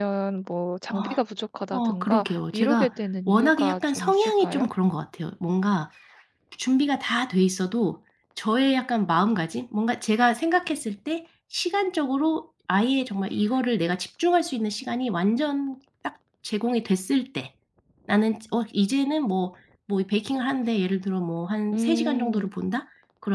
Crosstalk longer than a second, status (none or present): present